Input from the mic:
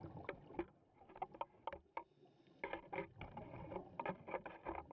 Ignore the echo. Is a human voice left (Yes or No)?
No